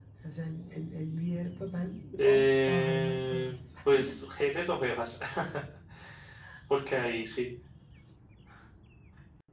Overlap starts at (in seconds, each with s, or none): 2.1 s